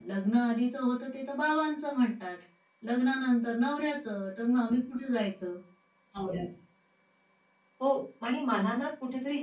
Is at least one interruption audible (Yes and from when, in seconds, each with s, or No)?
No